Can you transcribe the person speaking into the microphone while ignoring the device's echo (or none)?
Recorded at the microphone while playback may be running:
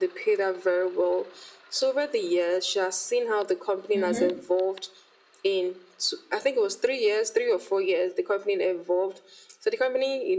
Mm-hmm.